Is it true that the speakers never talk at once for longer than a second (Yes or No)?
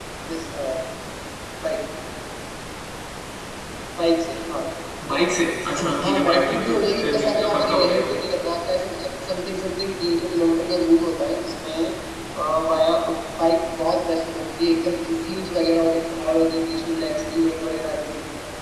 No